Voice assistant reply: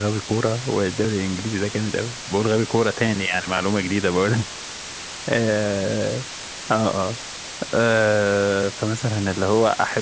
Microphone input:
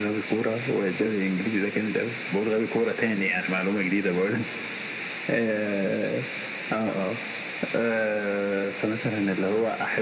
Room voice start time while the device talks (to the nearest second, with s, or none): none